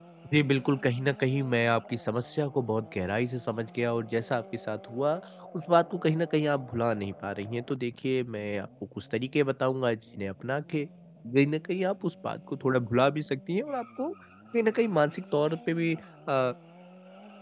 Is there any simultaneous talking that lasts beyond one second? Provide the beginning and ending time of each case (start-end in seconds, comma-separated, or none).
none